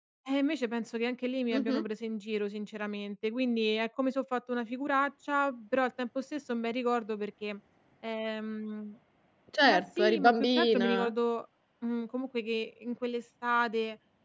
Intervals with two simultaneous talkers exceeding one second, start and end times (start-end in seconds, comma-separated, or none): 9.6-10.9